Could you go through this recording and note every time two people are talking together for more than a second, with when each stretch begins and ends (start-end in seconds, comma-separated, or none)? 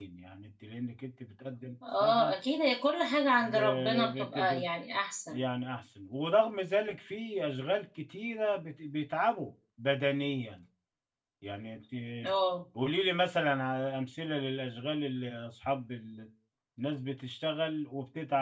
3.4-4.6